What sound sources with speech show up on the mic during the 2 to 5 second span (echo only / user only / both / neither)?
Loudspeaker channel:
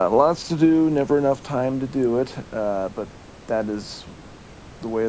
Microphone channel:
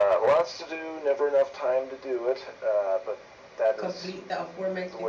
both